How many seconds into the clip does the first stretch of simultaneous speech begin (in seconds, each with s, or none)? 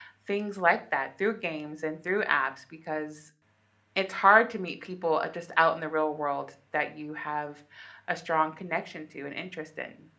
none